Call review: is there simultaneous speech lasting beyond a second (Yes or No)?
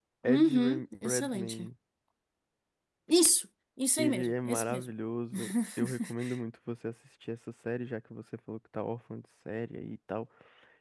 Yes